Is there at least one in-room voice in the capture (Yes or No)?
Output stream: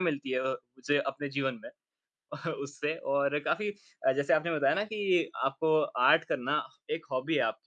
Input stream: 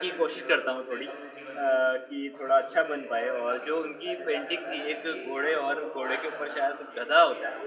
Yes